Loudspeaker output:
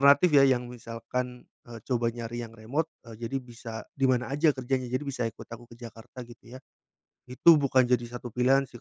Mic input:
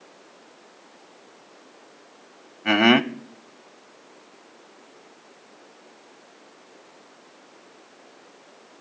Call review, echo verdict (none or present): none